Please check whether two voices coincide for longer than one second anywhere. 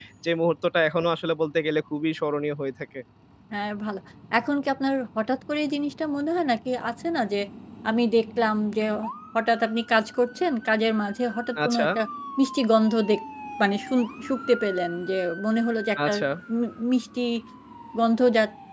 No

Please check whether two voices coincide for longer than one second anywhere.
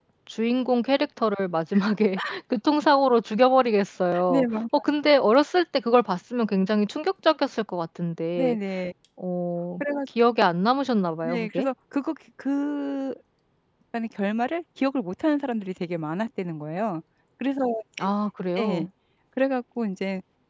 No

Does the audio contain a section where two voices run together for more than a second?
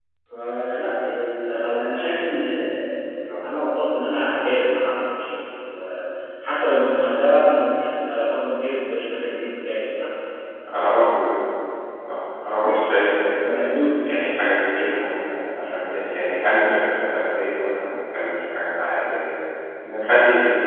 No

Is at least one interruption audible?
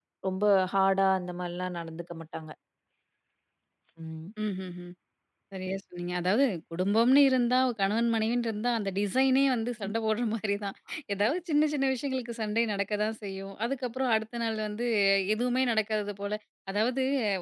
No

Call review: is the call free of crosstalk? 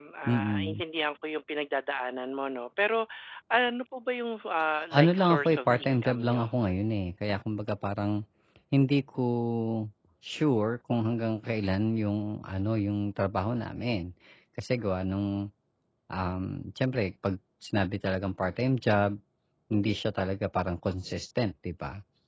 No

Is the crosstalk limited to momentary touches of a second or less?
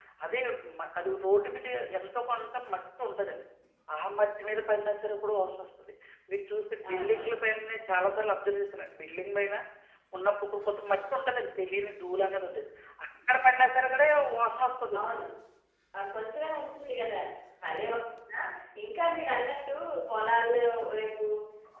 Yes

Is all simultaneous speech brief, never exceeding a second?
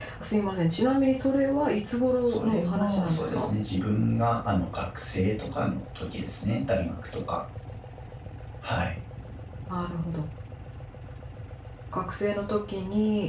No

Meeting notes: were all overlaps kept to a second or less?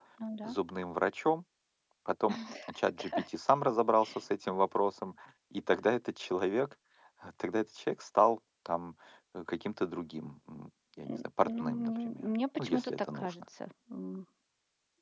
No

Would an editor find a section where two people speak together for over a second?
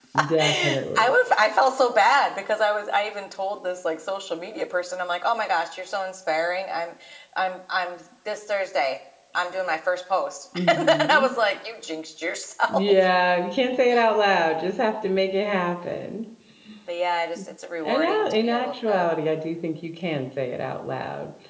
Yes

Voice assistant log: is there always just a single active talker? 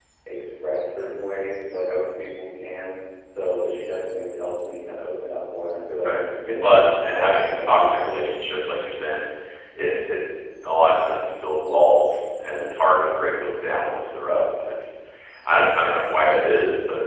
No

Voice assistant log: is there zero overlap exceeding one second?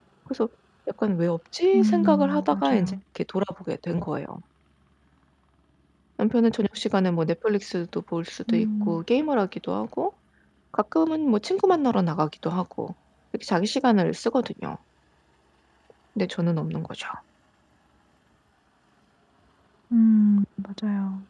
No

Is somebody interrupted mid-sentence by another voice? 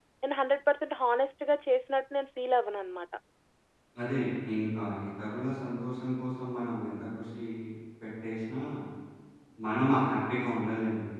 No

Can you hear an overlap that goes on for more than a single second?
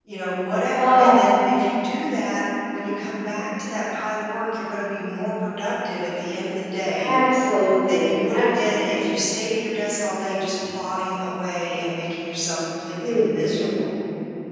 Yes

